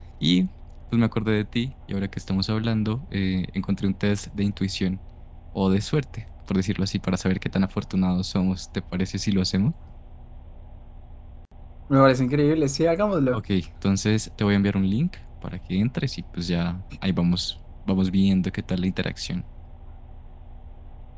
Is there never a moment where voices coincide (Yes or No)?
Yes